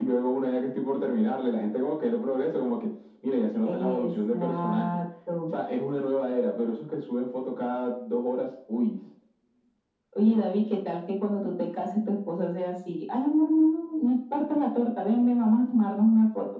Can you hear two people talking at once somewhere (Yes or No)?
Yes